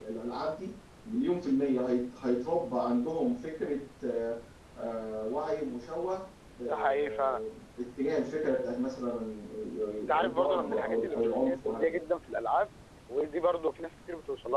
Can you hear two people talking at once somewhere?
Yes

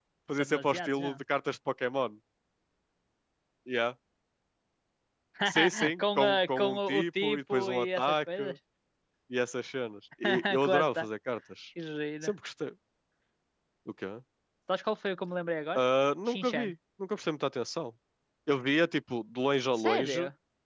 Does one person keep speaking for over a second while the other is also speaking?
Yes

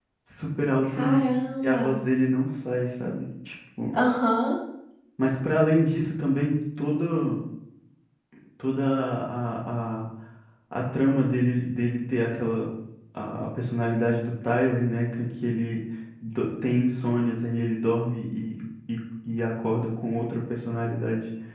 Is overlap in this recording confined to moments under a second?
Yes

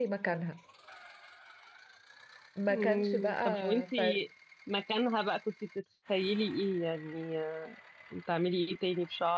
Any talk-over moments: Yes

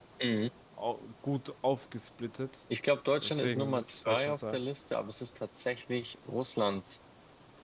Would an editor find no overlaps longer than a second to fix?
No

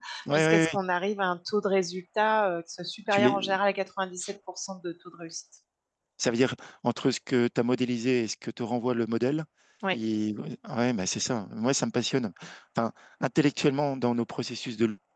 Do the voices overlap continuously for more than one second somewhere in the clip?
No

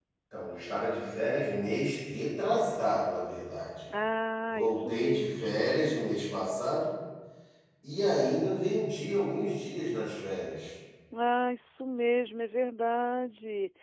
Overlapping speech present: Yes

